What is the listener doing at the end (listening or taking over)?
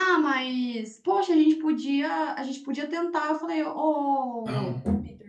listening